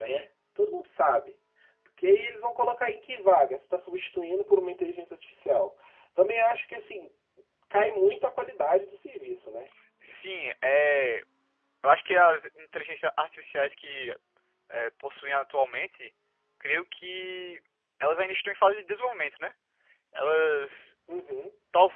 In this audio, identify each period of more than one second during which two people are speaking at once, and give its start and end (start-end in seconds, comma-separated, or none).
none